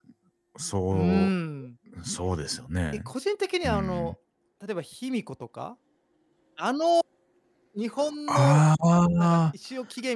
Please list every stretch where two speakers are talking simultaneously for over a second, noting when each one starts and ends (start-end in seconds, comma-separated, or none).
none